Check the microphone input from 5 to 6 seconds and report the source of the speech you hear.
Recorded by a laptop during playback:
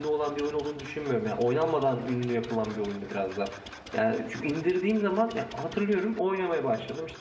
user only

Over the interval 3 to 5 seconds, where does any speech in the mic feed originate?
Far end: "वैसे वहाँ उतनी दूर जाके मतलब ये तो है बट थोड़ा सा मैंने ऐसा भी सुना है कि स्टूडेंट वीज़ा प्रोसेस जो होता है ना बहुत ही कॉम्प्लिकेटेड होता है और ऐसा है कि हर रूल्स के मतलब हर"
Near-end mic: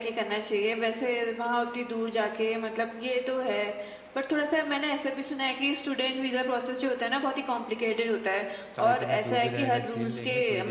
echo only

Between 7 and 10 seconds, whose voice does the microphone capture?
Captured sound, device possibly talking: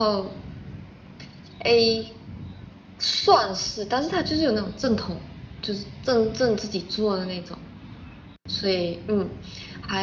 echo only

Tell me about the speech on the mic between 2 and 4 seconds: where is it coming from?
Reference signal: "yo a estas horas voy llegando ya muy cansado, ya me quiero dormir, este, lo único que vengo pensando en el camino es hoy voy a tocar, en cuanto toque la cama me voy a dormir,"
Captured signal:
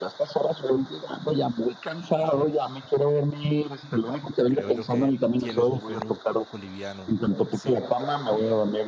echo only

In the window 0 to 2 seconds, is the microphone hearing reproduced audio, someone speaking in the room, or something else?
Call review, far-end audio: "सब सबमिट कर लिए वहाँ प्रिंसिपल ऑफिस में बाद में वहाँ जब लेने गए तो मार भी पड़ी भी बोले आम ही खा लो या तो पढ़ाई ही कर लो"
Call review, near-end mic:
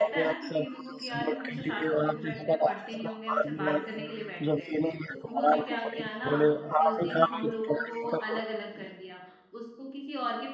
both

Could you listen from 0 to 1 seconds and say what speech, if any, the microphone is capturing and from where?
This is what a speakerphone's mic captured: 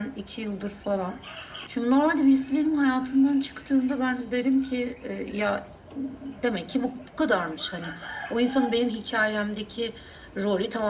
echo only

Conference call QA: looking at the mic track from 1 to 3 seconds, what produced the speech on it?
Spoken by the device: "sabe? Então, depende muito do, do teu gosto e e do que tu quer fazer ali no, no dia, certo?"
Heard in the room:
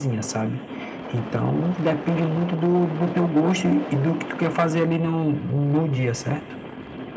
echo only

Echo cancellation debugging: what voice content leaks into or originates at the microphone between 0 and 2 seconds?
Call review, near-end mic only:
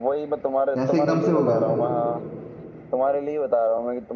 both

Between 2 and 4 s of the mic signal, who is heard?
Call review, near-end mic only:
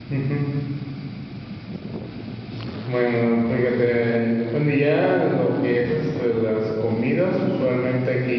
user only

